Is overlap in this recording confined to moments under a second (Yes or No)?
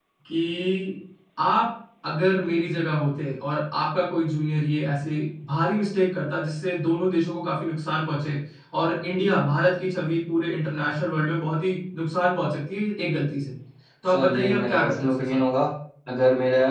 No